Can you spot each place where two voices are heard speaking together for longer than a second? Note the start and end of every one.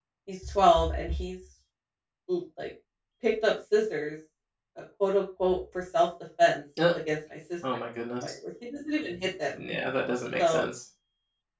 none

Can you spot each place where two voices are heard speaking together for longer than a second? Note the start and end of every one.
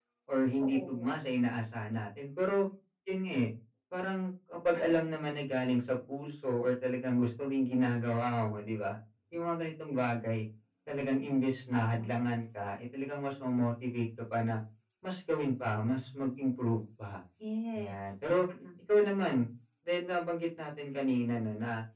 none

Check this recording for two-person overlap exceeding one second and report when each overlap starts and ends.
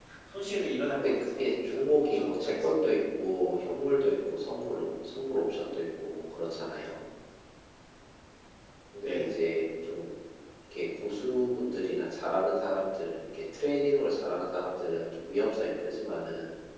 1.0-2.7

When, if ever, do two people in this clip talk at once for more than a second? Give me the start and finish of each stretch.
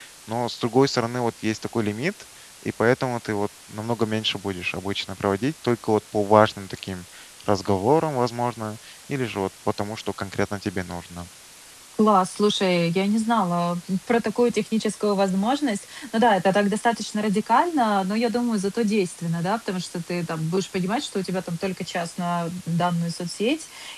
none

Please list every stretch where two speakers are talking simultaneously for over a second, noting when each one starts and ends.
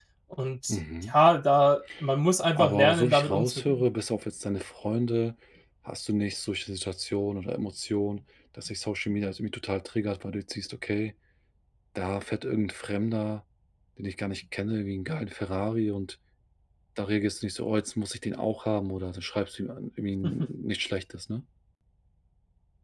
2.5-3.8

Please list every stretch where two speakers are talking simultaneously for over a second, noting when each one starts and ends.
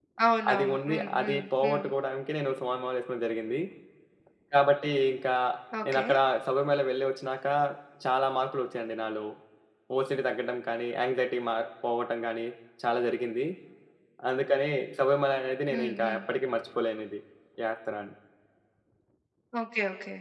0.5-1.8

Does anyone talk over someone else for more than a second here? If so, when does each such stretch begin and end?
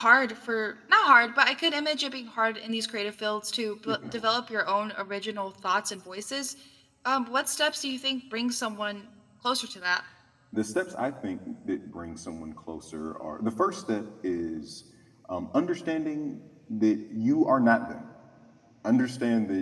none

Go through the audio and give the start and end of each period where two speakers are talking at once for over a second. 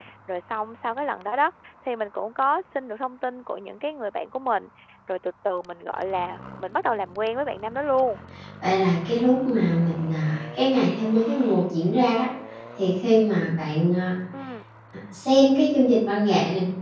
none

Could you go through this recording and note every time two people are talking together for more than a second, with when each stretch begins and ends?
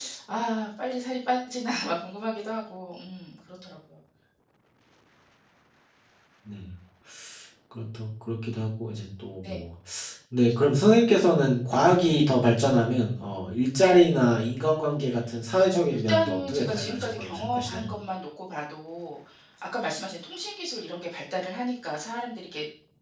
15.9-17.9

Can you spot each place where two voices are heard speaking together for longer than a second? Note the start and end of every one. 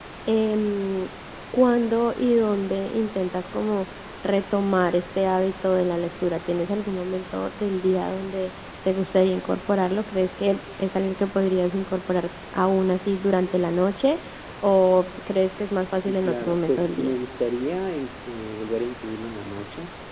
15.9-17.2

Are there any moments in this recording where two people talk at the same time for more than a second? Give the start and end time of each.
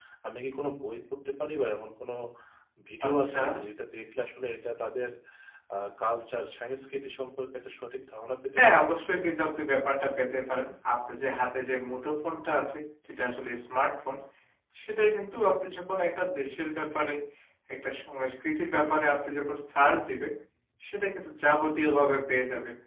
none

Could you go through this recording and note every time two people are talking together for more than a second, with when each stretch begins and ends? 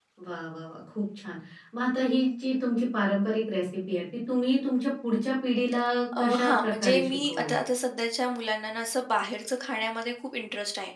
6.2-7.5

